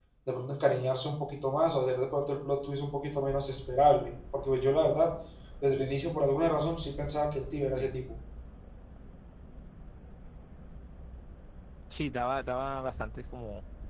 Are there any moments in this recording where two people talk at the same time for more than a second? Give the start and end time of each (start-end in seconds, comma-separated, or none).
none